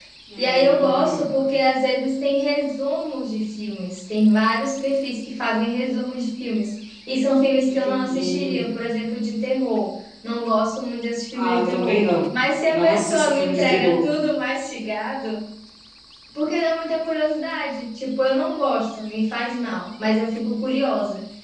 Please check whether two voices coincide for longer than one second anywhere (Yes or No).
Yes